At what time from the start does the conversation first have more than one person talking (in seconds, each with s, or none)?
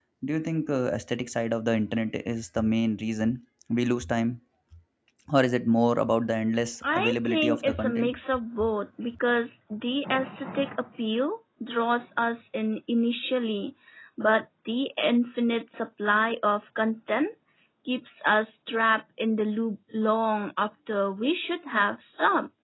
6.8 s